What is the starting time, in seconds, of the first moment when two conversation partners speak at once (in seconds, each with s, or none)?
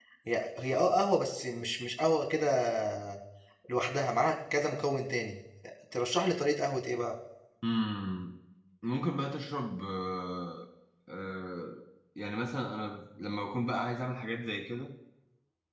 none